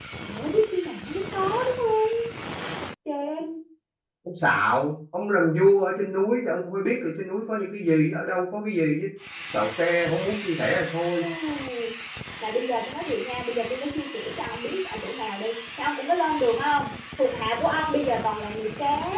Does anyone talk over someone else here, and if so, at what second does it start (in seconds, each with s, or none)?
none